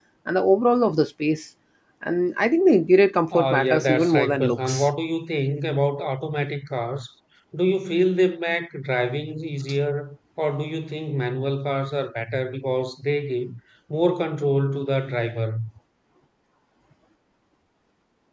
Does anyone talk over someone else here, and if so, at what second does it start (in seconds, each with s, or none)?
3.3 s